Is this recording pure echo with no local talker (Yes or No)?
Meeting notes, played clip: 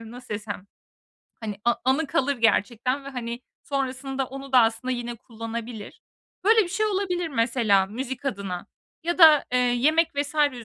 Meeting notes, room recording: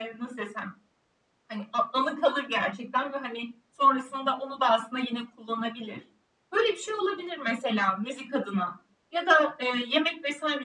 Yes